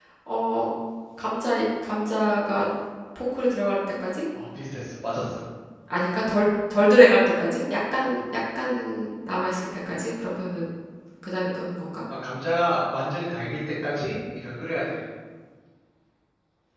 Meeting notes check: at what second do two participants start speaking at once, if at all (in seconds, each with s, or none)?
none